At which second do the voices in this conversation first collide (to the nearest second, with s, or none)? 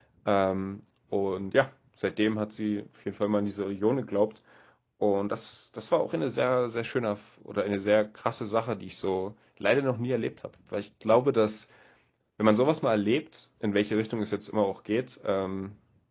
none